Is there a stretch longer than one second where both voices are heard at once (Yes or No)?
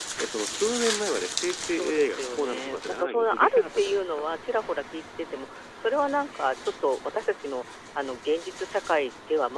Yes